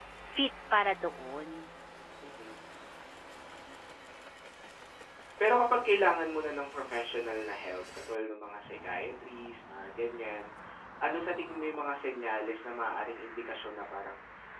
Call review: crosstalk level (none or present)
none